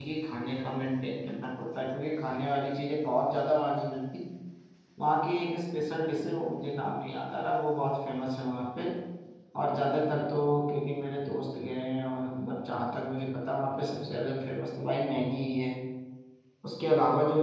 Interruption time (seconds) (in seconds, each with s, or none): none